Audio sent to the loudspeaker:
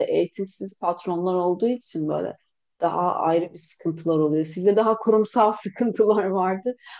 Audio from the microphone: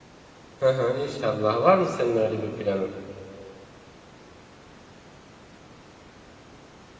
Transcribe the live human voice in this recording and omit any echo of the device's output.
Hı hı, İnşallah. Var mı senin öyle bir planın?

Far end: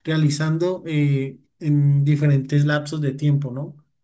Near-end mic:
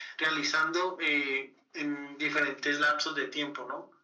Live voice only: none

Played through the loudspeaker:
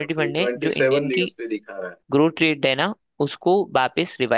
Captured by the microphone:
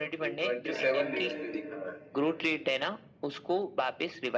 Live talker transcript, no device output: चाइना ने भी उस- है।

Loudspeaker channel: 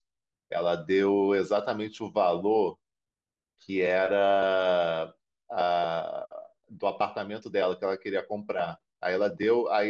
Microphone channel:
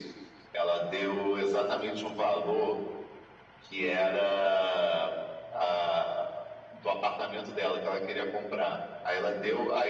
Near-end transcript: none

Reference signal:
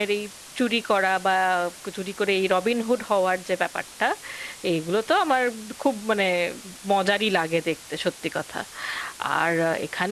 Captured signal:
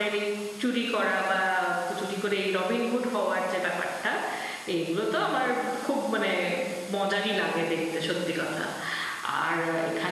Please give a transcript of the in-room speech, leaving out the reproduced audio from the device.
none

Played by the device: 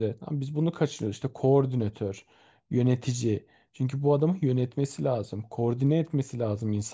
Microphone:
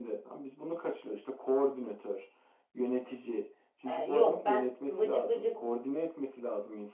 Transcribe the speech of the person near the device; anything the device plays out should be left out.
E, yok ben vıcık vıcık

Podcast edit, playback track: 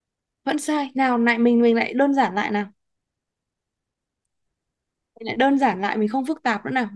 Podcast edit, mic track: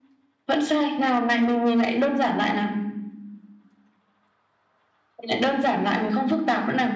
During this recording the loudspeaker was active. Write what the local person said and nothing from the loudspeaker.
none

